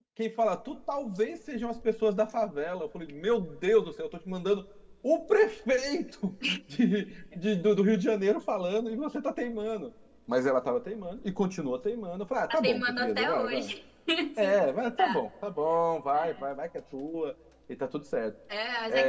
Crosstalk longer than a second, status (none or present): present